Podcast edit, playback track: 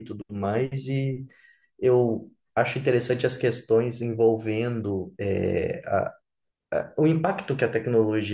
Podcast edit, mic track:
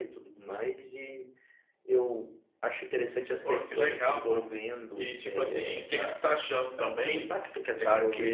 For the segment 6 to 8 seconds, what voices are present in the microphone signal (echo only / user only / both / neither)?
both